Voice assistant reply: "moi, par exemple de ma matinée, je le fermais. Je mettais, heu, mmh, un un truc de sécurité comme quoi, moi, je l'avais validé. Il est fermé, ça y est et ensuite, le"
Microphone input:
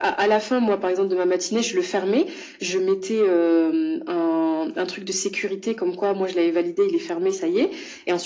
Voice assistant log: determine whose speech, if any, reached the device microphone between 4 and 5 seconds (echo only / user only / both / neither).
echo only